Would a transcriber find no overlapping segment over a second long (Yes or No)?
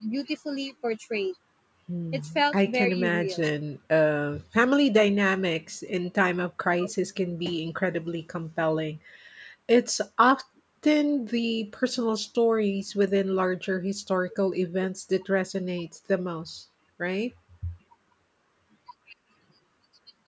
No